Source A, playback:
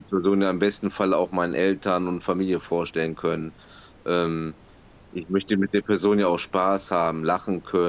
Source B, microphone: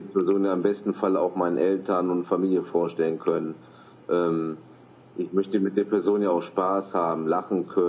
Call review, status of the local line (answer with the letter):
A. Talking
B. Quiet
B